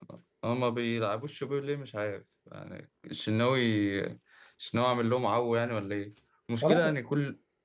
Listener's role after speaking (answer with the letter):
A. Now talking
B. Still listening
B